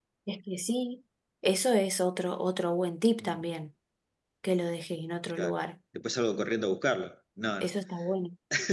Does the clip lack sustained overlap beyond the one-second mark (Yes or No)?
Yes